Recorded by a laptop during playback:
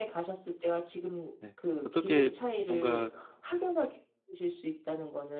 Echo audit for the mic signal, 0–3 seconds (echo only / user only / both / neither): both